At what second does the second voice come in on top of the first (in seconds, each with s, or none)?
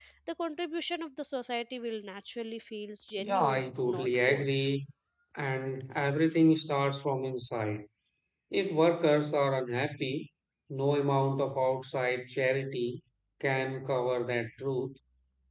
3.2 s